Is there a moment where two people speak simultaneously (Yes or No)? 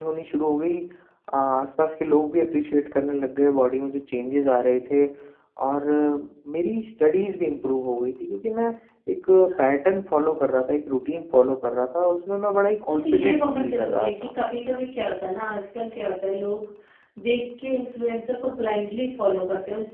Yes